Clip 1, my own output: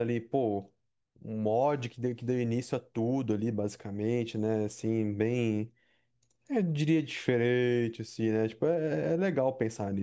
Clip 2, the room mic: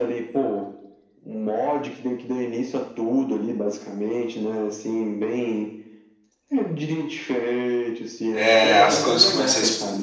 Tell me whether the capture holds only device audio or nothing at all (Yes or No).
No